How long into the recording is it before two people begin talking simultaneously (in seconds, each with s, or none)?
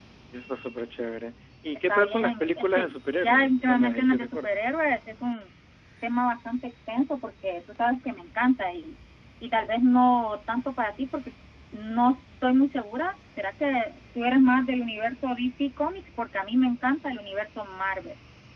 1.9 s